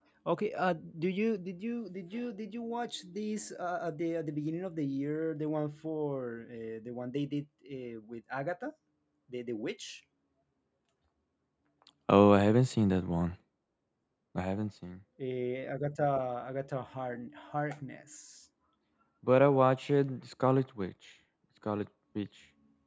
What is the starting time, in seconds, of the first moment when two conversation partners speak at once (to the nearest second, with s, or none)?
none